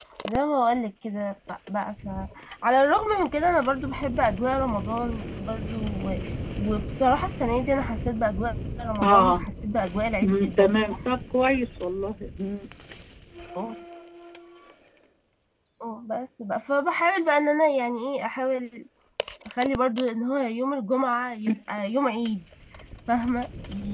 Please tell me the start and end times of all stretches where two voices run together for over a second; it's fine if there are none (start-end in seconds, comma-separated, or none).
none